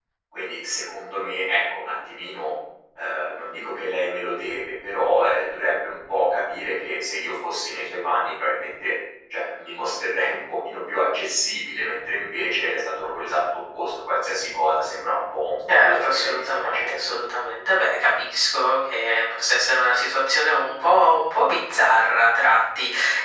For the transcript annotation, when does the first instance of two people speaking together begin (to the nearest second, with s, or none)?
16 s